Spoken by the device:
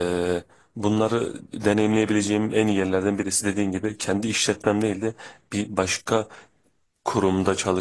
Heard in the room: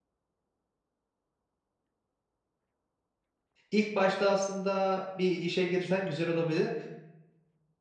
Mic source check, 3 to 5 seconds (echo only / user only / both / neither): user only